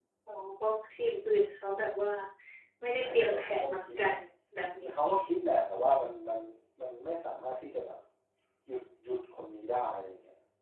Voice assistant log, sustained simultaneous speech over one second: present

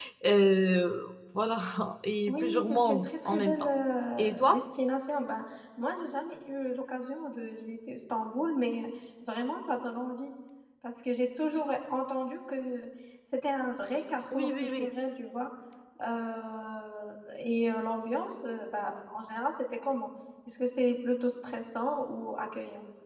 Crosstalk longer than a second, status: present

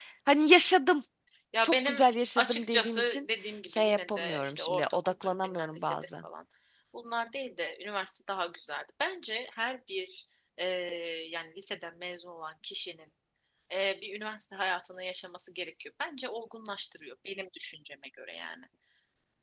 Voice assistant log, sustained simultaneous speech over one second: present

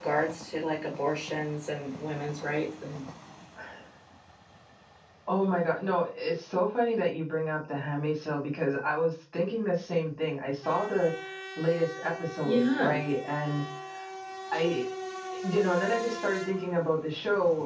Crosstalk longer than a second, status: none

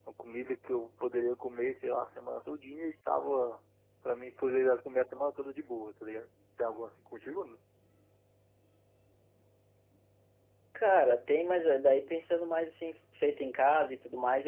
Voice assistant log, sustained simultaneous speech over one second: none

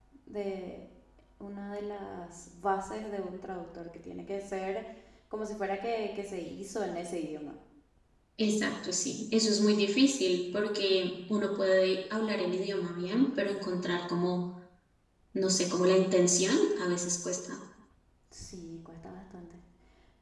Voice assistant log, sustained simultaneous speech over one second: none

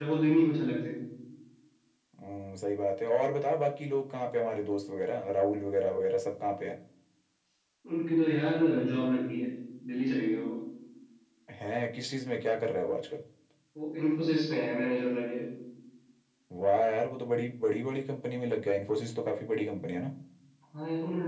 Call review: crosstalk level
none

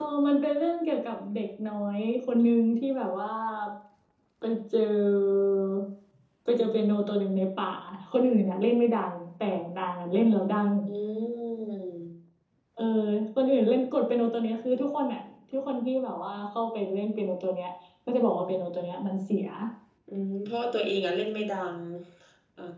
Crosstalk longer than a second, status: none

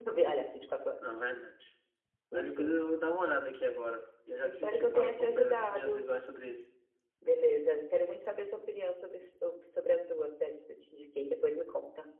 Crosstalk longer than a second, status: present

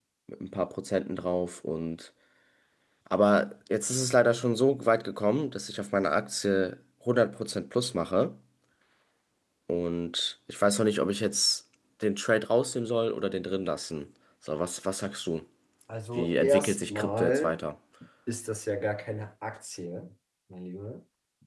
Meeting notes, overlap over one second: present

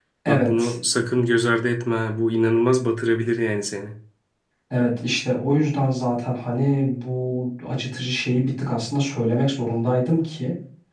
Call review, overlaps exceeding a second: none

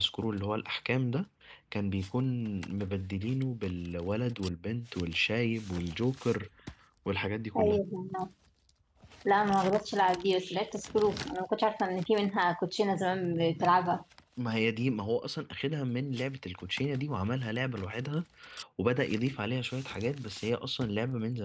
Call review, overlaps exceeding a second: none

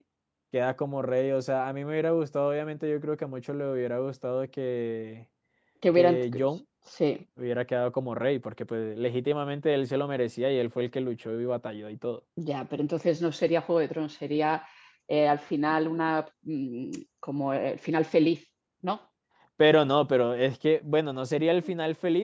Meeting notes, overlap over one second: none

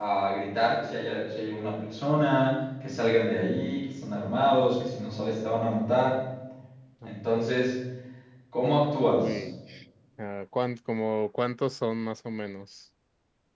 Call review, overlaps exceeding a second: none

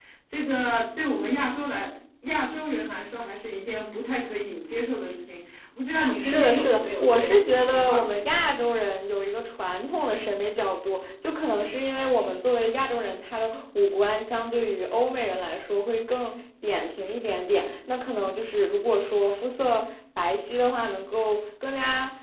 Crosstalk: present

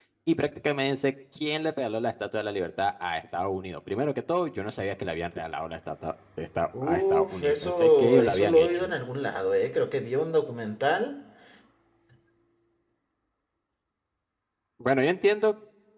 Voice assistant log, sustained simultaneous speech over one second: present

